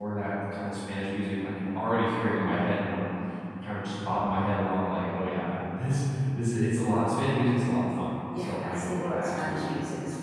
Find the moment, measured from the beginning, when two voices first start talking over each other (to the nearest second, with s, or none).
8 s